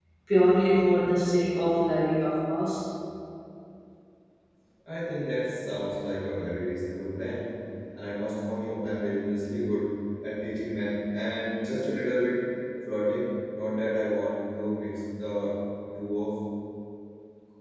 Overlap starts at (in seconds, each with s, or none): none